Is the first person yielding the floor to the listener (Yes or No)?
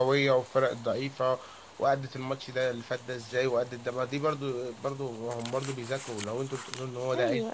Yes